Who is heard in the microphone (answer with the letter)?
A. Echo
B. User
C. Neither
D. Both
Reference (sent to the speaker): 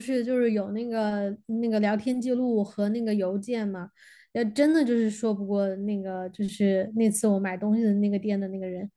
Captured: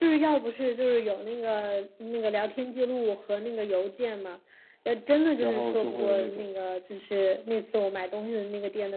D